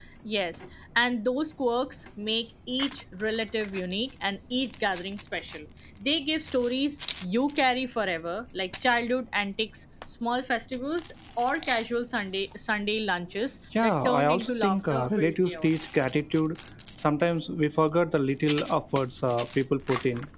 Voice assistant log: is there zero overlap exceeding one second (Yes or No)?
No